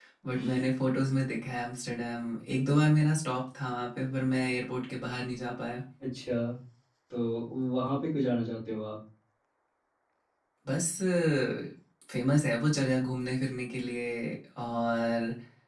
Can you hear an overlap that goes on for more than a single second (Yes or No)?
No